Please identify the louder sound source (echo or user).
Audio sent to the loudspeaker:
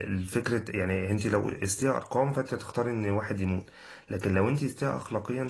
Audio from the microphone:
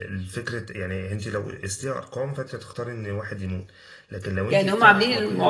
user